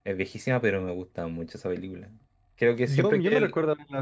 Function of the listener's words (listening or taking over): taking over